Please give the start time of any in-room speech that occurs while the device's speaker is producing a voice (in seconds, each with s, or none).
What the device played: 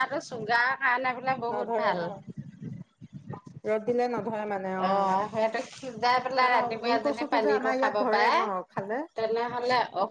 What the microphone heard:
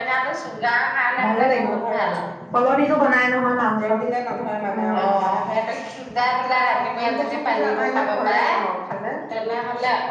1.2 s